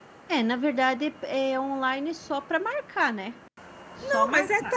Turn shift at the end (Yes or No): Yes